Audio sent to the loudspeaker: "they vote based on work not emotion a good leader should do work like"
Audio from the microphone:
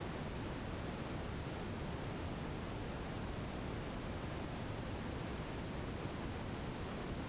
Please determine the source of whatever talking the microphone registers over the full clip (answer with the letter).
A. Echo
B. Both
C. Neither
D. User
C